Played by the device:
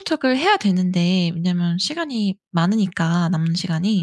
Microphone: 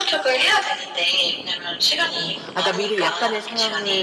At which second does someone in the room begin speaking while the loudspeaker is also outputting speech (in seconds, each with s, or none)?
2.1 s